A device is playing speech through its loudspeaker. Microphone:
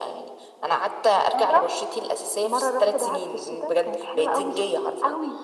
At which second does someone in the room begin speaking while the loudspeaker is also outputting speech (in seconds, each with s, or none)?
none